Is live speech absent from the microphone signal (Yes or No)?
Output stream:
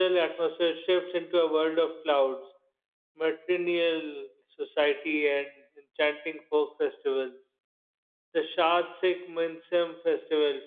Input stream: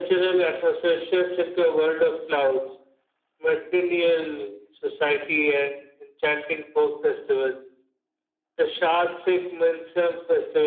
Yes